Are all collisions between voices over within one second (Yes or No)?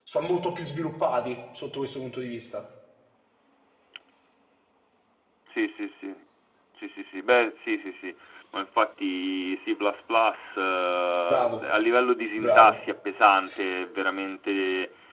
Yes